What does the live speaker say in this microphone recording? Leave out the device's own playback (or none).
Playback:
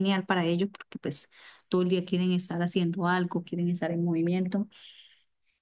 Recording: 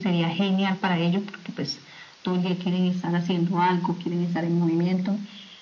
none